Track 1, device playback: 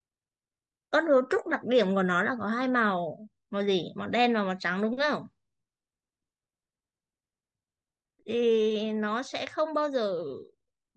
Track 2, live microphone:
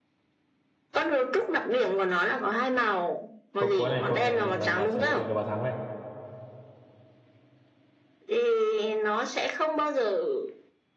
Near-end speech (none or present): present